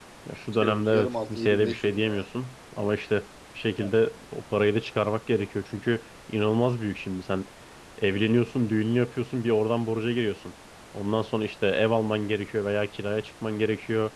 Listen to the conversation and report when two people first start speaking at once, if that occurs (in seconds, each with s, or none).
0.6 s